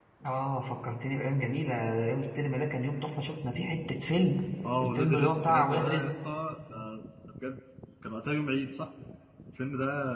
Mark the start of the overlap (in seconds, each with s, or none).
4.8 s